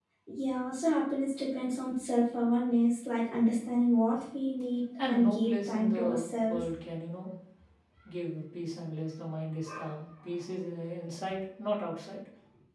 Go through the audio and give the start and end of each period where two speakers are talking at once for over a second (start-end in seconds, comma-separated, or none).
5.1-6.7